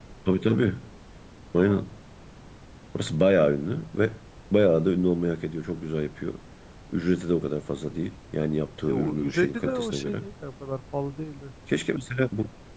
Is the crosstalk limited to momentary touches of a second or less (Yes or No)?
No